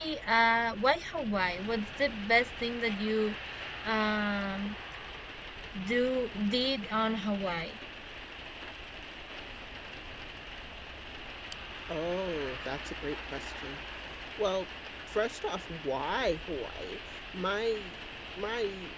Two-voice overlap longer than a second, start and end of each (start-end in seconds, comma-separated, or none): none